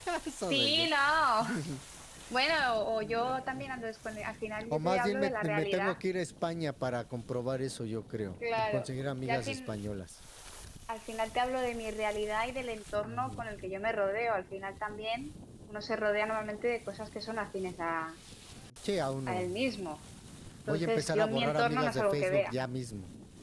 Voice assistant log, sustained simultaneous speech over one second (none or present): present